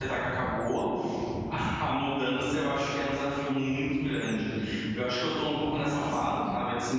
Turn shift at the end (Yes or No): No